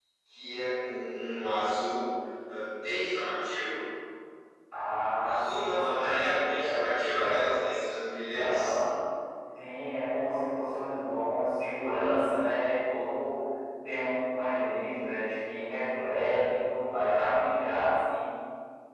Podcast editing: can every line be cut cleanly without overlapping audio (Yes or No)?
No